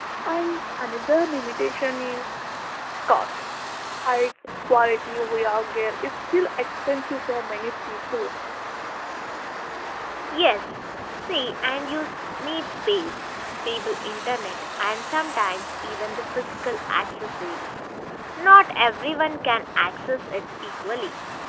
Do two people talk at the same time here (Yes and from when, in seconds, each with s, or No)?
No